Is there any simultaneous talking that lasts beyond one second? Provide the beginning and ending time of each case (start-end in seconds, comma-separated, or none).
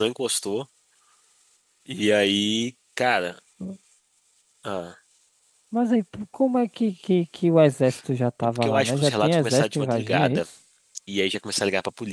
8.4-10.4